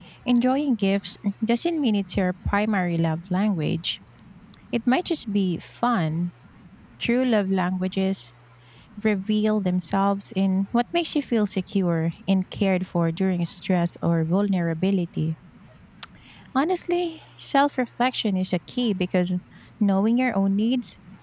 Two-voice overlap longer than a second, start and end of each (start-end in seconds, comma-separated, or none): none